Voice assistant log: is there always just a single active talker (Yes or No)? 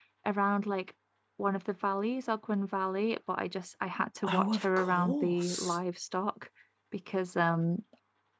No